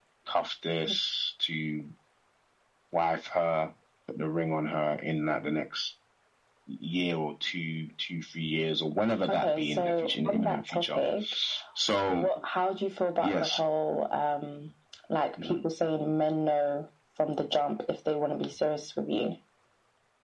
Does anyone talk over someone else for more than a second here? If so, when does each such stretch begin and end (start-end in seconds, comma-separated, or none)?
9.3-11.0